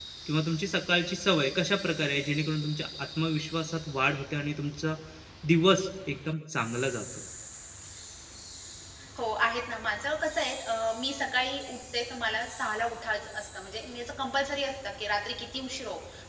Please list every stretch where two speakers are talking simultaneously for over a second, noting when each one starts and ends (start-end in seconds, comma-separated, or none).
none